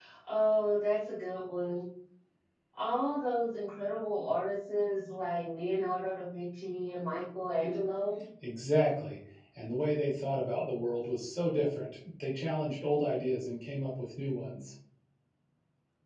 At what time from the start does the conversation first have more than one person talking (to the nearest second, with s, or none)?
none